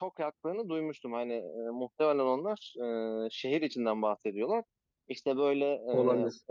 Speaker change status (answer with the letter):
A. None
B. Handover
A